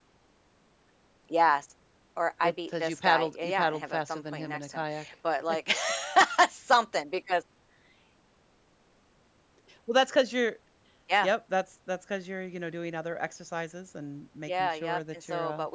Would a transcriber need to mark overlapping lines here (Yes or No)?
Yes